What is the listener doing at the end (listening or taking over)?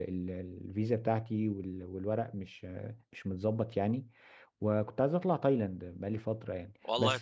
taking over